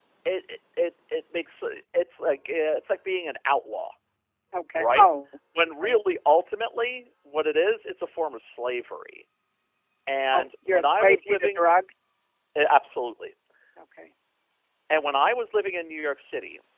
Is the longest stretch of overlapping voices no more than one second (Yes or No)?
No